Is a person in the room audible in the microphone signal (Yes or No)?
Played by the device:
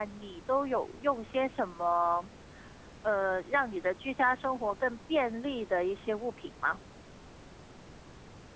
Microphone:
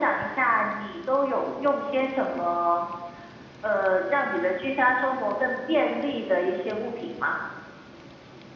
No